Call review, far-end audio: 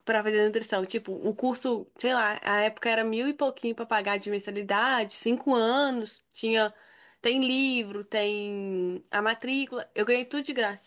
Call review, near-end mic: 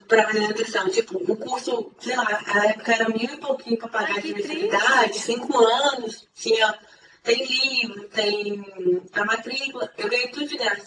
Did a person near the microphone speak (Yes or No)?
Yes